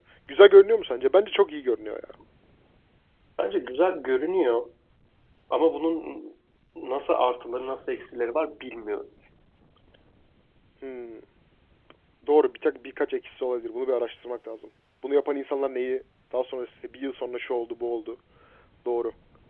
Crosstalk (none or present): none